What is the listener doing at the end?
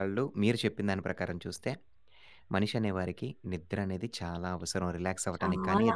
listening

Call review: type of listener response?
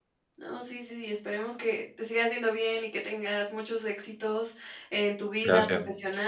listening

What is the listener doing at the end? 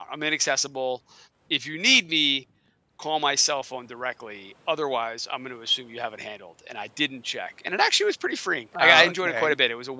listening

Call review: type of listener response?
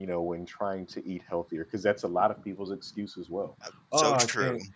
listening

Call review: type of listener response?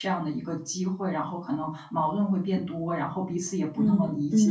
taking over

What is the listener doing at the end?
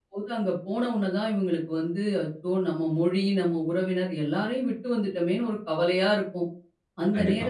listening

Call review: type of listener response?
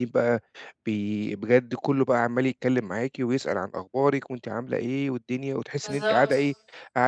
listening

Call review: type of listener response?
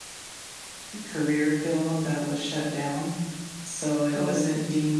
listening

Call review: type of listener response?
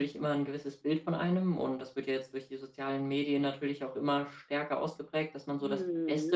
listening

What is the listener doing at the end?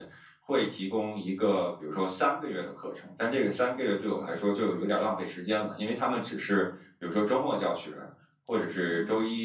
listening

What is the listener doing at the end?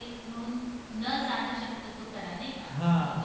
taking over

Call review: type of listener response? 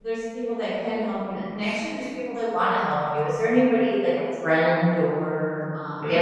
taking over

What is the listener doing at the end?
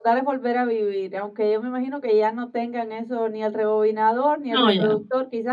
listening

